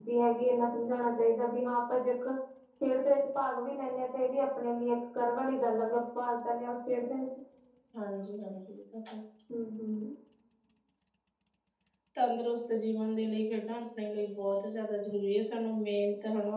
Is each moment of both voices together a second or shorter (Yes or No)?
Yes